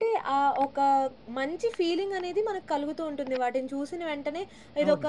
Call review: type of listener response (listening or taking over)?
listening